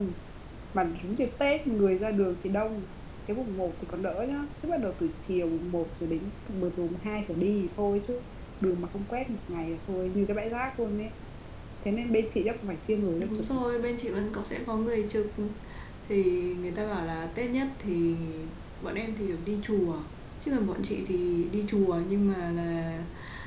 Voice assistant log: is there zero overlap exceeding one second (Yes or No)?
Yes